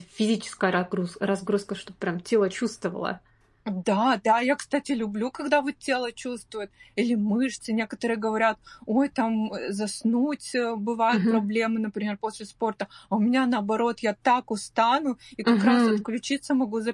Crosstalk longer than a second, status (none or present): none